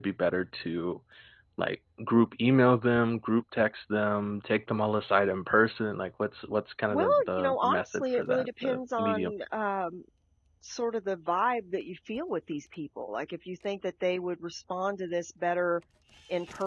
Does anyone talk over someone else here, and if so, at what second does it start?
6.9 s

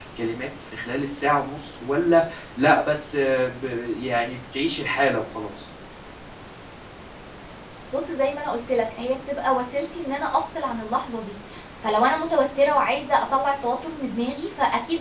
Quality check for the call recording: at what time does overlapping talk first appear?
none

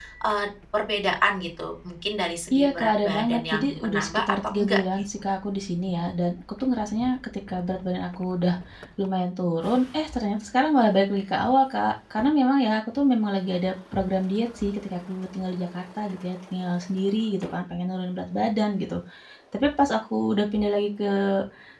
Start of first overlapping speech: 2.5 s

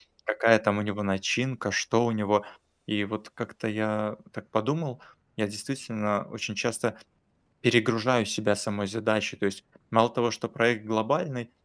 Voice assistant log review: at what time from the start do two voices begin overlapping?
none

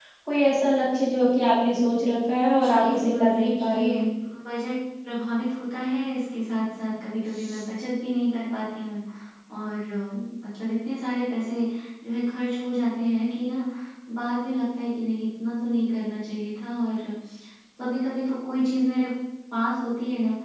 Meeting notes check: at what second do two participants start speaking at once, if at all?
2.5 s

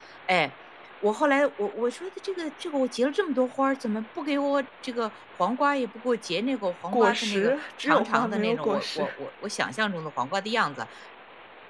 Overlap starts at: 6.9 s

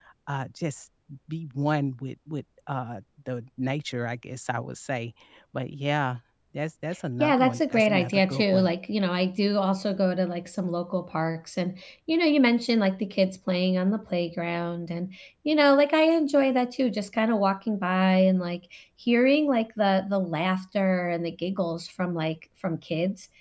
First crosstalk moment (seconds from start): 7.2 s

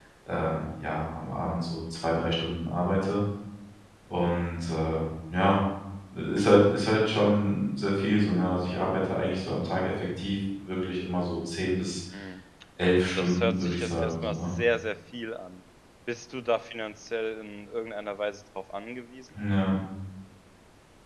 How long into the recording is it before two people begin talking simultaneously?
13.2 s

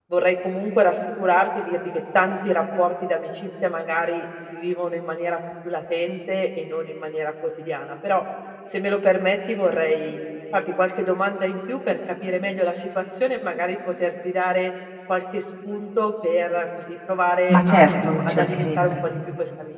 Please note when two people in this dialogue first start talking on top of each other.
17.5 s

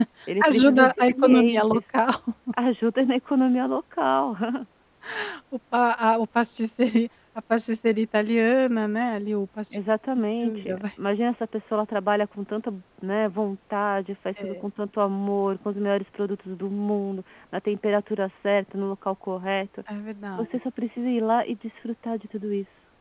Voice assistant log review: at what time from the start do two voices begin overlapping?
0.5 s

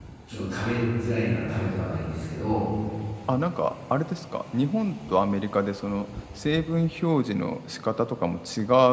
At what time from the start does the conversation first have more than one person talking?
none

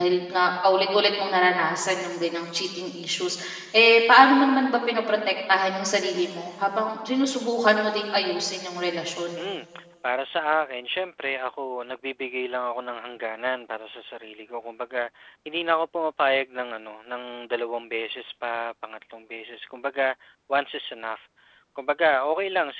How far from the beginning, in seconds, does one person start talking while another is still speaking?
none

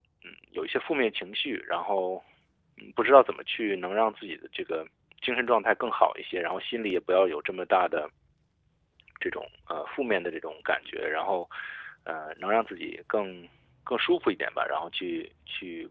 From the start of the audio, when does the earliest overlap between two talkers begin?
none

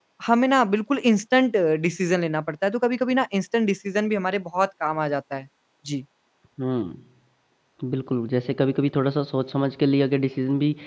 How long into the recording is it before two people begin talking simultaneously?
none

